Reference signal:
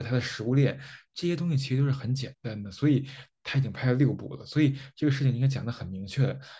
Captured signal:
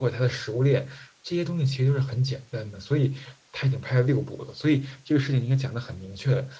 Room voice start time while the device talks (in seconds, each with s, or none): none